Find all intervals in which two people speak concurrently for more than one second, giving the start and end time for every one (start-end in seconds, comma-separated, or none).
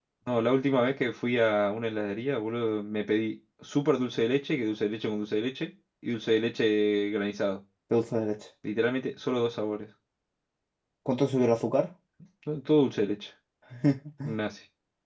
none